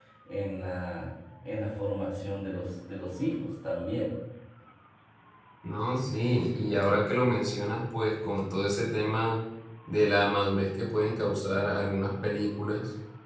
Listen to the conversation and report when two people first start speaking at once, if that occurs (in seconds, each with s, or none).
none